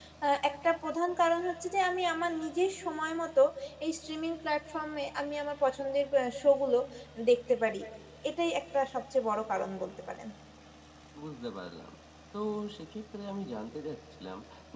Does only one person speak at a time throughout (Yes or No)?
Yes